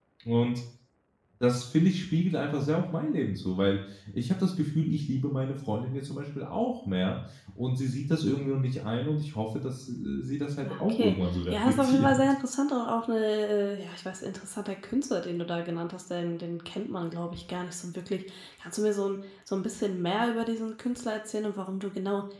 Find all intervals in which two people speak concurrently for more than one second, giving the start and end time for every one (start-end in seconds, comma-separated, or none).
10.6-12.2